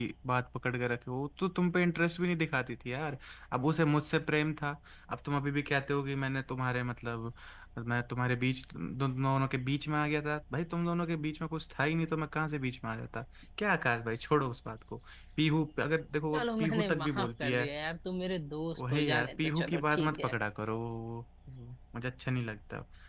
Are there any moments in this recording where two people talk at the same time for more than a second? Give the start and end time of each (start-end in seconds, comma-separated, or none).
16.3-17.6, 18.8-20.3